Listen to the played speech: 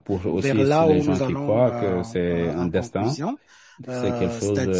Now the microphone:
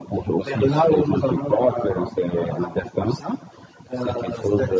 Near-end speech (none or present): none